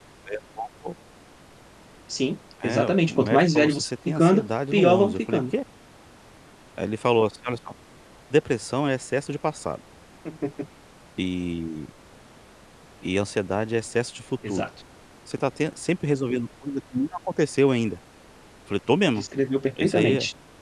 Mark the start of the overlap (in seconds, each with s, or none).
2.6 s